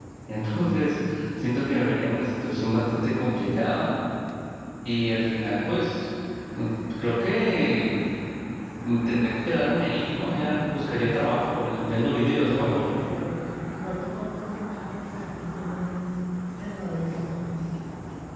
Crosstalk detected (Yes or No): No